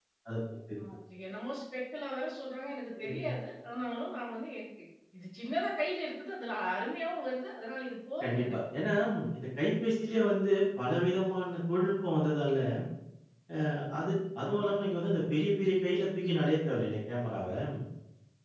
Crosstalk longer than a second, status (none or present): none